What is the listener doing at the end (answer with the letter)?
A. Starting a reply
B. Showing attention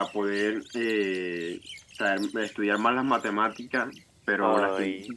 B